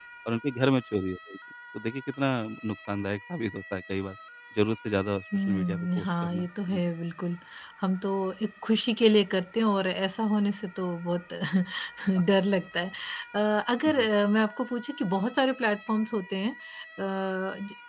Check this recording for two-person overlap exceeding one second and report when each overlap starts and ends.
5.5-6.8

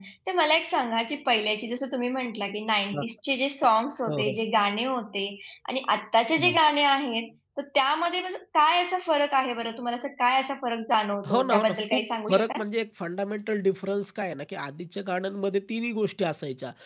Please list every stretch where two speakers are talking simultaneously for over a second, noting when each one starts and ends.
11.3-12.6

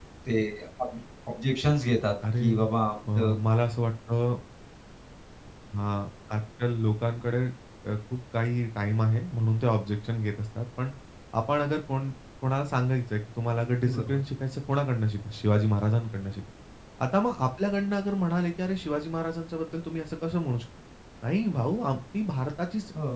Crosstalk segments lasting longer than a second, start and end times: none

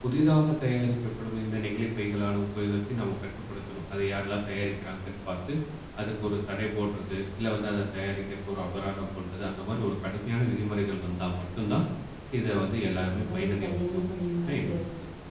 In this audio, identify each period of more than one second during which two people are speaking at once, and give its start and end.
13.1-14.7

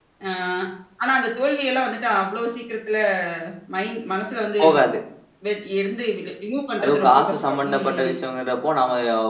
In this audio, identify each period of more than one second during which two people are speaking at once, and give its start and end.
6.8-8.1

